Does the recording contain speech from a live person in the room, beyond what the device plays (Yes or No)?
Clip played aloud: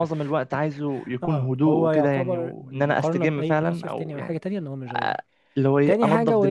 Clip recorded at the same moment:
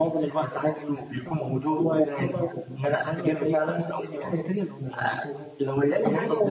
Yes